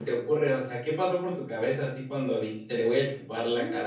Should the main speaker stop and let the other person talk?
Yes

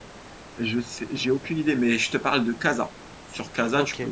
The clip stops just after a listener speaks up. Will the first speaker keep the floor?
Yes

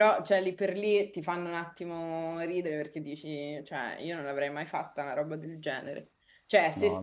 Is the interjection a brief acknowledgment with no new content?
Yes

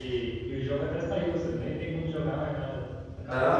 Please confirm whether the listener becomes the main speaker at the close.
Yes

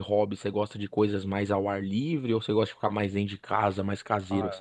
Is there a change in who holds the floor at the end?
Yes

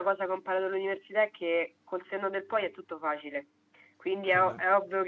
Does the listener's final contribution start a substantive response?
No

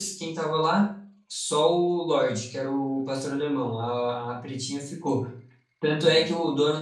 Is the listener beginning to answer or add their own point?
No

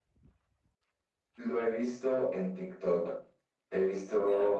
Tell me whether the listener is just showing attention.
Yes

